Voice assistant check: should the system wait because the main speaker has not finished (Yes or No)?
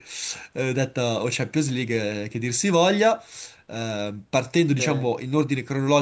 Yes